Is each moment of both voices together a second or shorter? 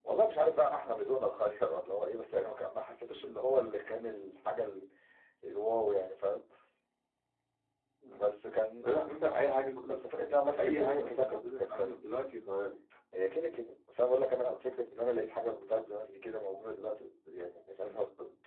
No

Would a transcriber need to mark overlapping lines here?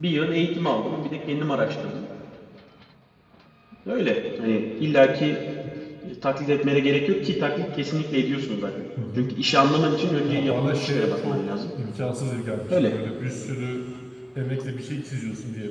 Yes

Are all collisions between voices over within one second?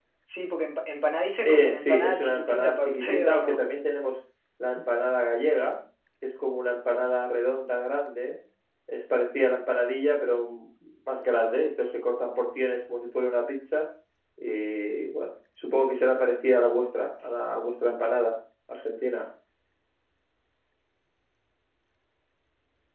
No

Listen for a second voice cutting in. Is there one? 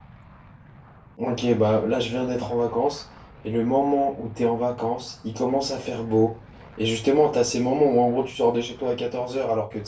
No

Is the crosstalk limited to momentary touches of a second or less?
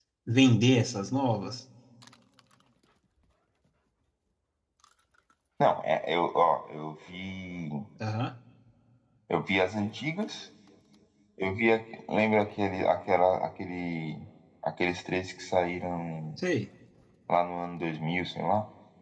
Yes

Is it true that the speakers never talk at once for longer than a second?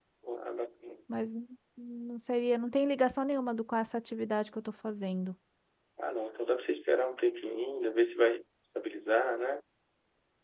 Yes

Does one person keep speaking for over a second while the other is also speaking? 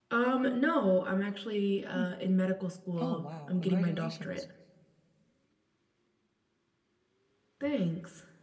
Yes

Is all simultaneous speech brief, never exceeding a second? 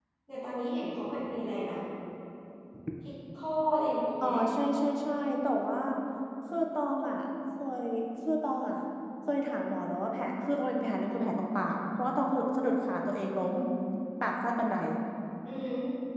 Yes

